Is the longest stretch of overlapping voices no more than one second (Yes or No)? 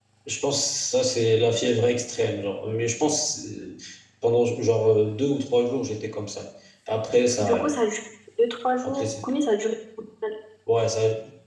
Yes